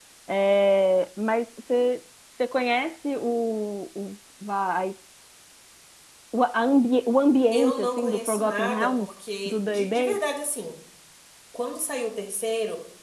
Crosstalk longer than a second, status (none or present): present